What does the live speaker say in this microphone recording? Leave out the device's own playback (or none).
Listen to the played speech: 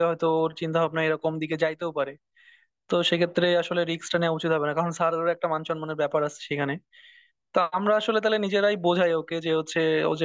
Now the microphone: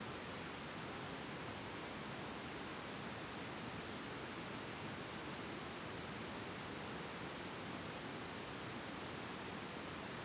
none